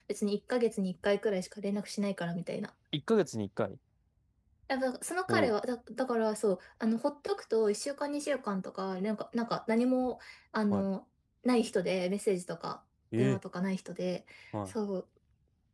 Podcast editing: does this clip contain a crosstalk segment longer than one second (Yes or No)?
No